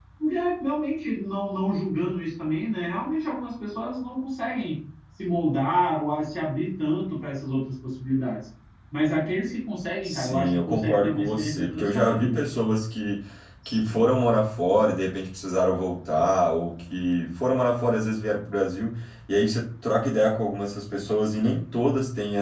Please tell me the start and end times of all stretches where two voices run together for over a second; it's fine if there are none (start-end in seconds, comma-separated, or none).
10.0-12.4